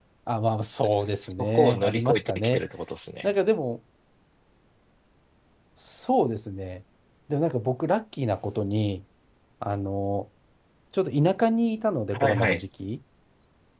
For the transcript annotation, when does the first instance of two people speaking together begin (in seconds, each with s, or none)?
0.9 s